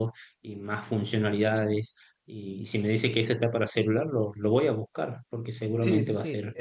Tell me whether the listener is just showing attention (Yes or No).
No